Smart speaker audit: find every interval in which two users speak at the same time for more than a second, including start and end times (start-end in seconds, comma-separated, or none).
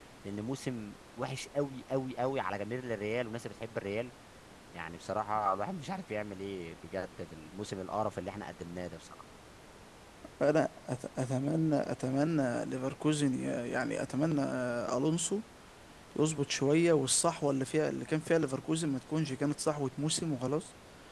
none